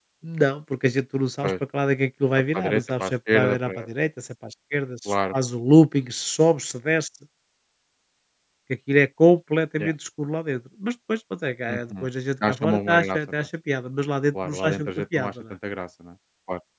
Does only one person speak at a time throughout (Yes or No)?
No